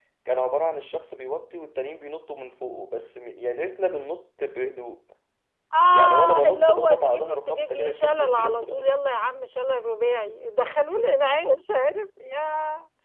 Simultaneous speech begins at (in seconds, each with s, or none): 5.9 s